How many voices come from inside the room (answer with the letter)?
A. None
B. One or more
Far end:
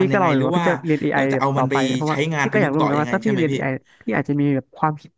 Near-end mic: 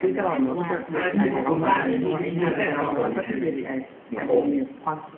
B